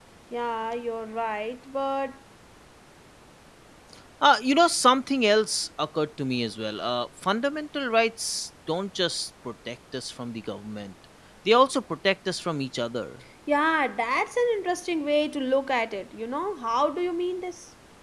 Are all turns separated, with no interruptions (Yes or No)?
Yes